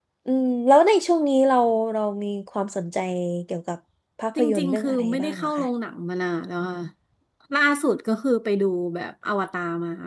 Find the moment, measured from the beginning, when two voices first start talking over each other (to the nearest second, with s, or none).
4 s